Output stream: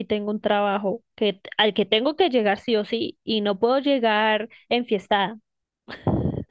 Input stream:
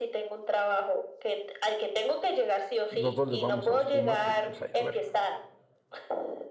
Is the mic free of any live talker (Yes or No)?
No